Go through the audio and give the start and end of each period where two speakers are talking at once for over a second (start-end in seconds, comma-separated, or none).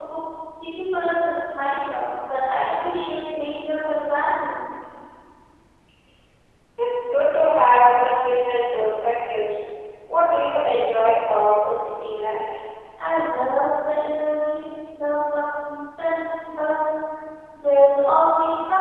none